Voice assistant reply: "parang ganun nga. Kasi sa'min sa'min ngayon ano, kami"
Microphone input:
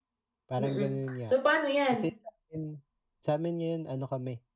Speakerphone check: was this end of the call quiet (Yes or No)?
No